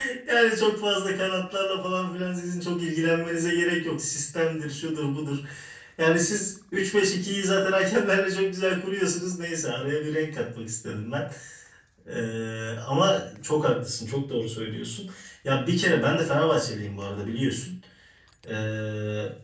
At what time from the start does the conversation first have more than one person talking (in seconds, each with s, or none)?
none